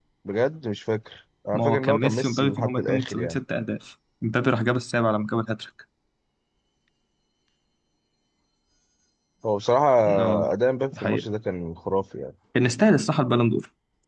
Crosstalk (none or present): present